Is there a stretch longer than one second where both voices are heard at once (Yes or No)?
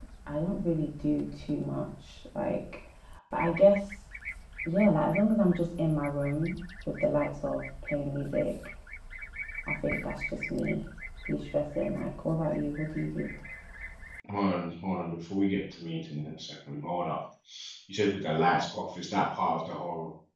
No